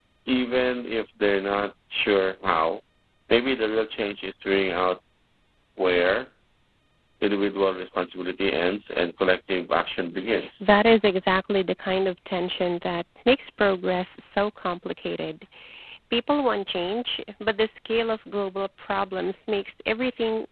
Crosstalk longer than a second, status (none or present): none